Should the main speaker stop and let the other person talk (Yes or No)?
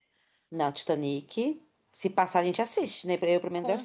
Yes